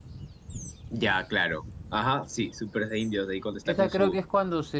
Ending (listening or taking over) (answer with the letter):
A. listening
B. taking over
B